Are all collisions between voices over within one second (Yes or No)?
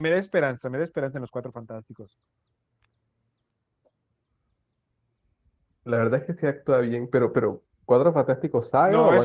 Yes